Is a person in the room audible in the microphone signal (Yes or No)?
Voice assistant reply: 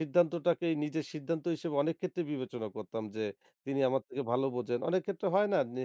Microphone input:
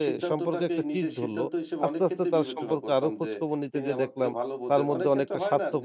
Yes